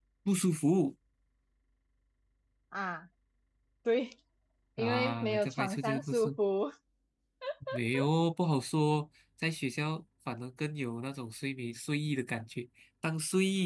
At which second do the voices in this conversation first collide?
4.8 s

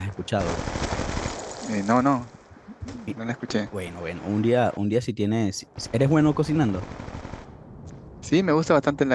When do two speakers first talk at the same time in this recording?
none

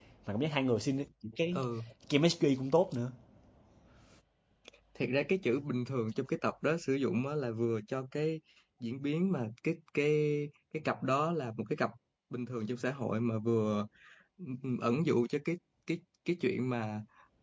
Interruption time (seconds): none

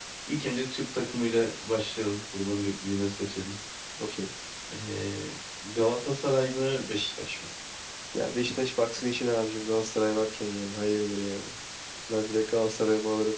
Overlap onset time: none

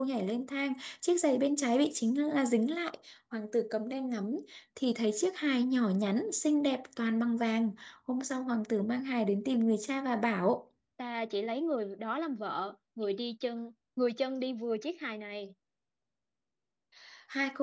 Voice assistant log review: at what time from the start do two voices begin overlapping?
none

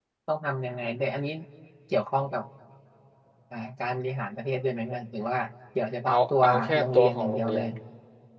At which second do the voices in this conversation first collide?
6.1 s

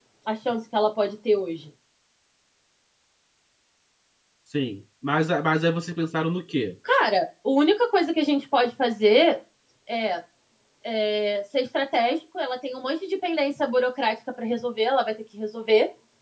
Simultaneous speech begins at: none

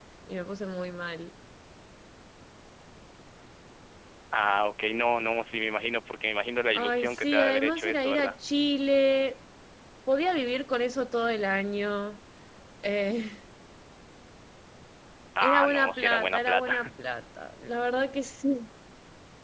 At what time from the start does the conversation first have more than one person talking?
6.7 s

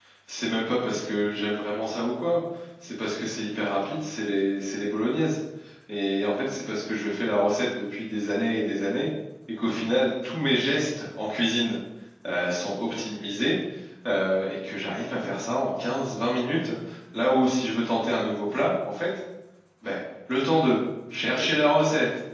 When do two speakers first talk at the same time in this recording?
none

